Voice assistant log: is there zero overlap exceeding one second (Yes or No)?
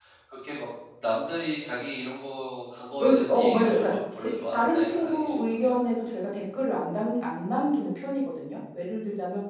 No